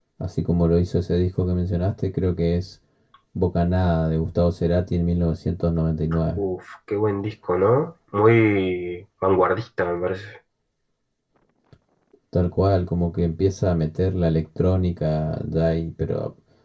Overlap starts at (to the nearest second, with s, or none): none